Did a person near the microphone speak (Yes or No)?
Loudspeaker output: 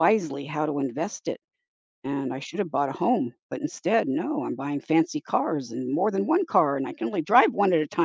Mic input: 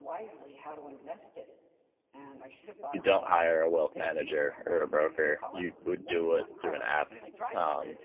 Yes